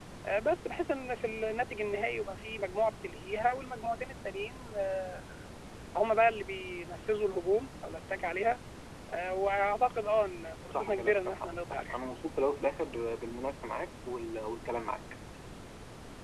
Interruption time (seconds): 10.7 s

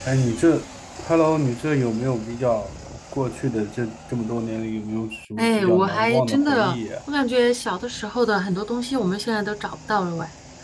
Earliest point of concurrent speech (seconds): 5.4 s

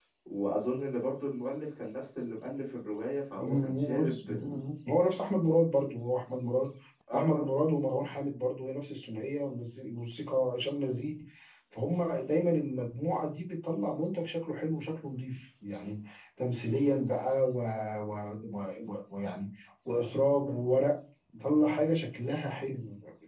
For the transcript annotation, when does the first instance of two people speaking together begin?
3.4 s

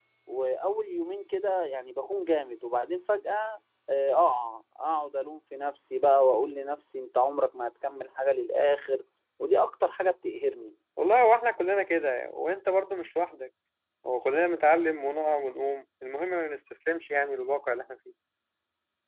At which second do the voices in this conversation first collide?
none

